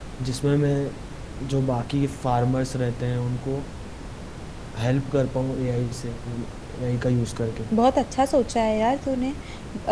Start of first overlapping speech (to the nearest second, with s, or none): none